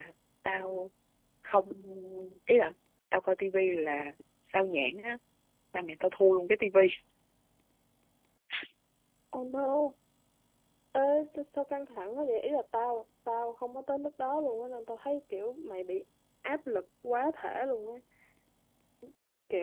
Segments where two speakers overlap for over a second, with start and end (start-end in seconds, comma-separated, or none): none